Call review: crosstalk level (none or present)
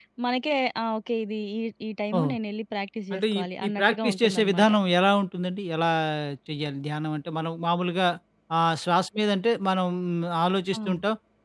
present